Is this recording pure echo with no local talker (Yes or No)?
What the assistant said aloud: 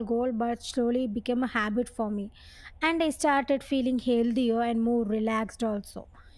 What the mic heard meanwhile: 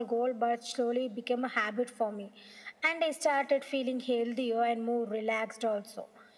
Yes